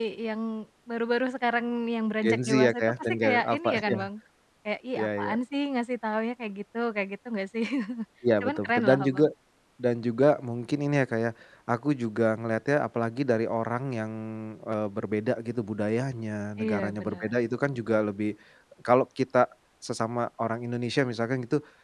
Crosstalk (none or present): present